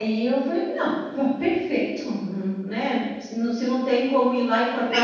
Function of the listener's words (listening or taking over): taking over